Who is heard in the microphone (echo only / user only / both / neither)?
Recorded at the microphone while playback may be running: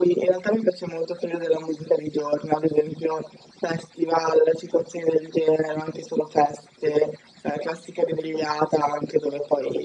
echo only